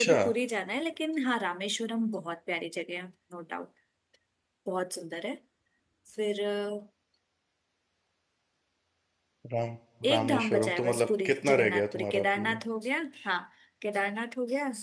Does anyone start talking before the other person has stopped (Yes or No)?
Yes